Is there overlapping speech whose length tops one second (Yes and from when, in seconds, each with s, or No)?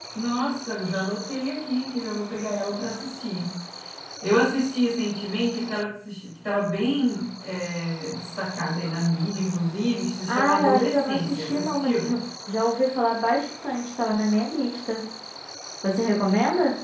Yes, from 10.3 s